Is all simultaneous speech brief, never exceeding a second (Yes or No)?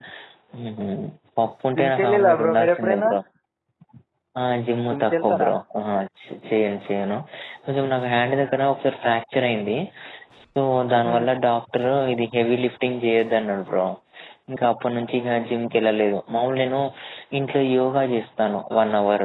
No